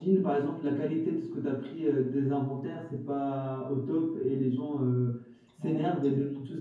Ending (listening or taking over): listening